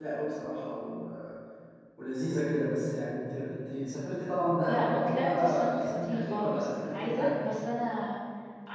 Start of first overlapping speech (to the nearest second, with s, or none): 5 s